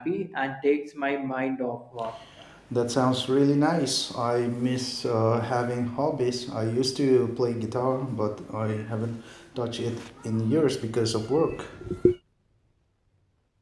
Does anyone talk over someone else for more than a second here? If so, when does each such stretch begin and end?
none

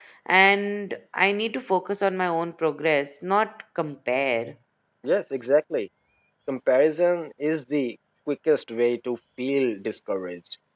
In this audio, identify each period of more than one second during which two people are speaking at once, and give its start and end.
none

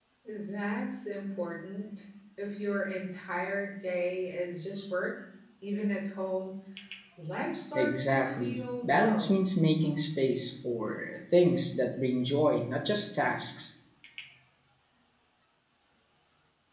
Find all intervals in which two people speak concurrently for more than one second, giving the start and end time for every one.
7.7-9.4

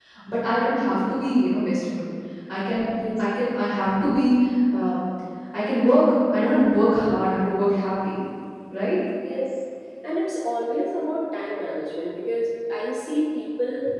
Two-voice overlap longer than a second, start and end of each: none

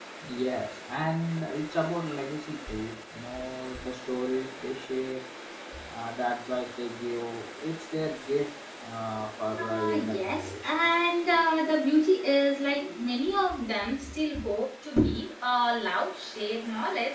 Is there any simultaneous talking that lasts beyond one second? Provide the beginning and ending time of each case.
9.6-10.8

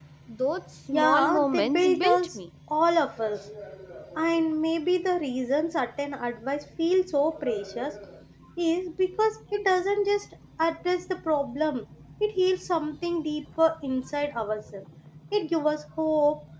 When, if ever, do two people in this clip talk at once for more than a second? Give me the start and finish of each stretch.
0.9-2.4

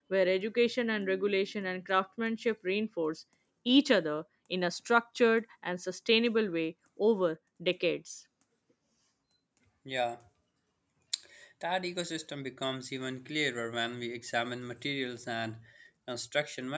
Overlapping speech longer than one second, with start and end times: none

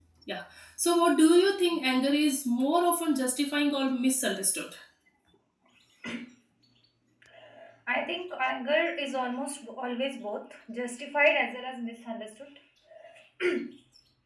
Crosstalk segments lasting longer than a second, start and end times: none

